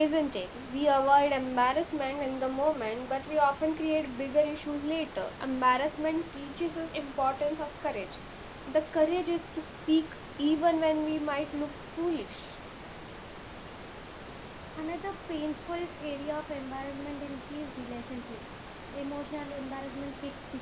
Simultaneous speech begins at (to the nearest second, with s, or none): none